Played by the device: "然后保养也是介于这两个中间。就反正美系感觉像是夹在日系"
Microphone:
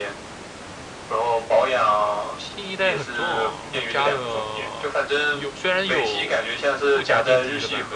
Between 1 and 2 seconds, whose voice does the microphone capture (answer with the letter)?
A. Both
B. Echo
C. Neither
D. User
B